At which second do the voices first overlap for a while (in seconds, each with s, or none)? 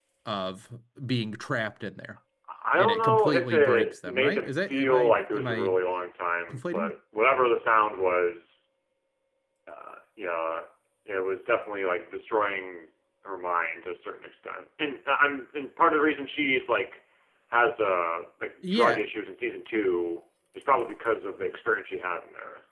2.8 s